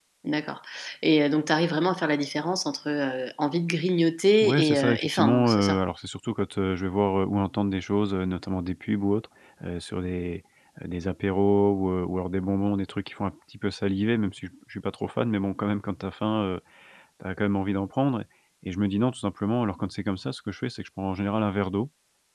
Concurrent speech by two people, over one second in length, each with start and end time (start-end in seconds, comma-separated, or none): 4.4-5.8